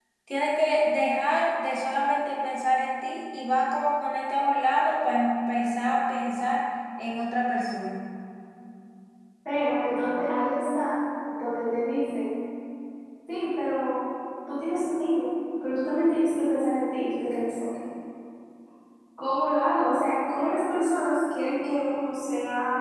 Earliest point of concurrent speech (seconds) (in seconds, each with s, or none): none